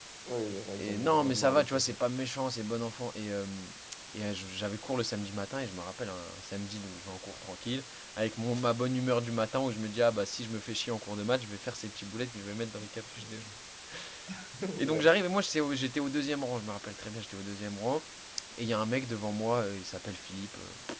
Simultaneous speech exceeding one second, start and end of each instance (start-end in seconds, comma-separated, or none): 0.8-2.0